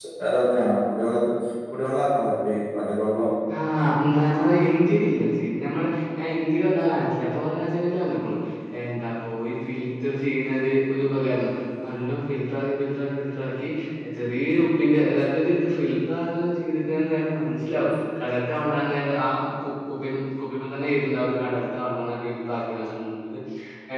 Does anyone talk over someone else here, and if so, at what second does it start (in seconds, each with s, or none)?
none